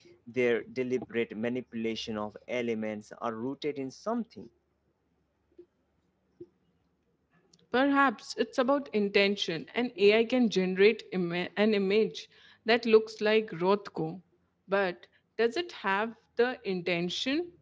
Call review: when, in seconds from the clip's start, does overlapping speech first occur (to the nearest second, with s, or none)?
none